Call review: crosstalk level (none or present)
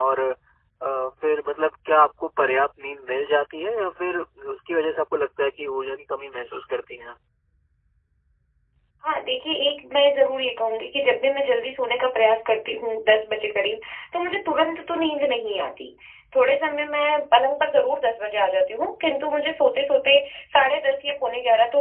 none